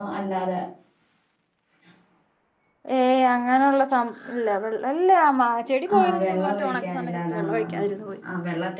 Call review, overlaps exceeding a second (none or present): present